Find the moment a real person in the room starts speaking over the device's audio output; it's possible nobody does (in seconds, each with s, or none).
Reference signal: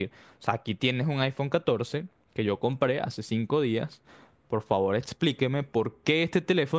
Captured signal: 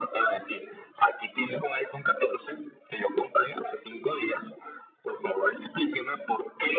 none